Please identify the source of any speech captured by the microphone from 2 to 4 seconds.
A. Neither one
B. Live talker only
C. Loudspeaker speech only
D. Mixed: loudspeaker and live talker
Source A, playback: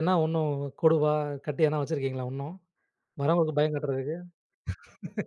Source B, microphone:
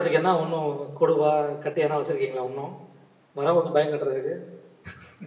C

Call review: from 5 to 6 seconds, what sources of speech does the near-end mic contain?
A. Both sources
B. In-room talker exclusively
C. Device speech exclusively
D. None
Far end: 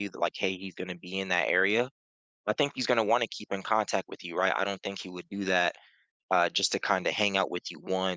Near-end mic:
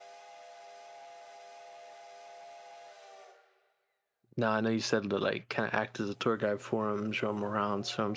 B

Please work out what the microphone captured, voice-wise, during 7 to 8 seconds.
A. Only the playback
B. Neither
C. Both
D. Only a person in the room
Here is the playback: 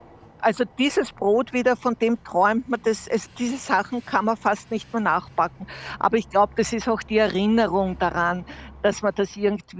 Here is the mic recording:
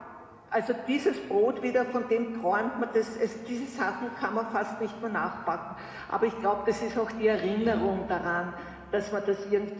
C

